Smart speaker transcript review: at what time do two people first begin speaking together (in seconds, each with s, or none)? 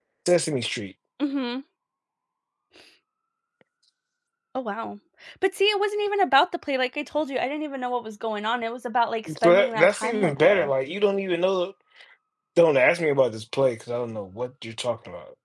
9.3 s